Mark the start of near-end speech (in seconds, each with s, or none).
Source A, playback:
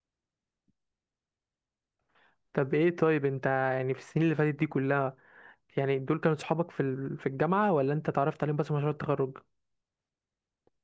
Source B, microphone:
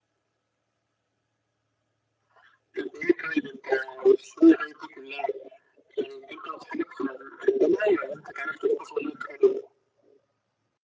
none